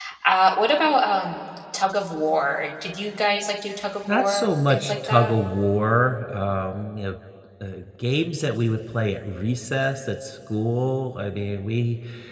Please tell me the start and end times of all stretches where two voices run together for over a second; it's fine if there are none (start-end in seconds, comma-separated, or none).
4.1-5.3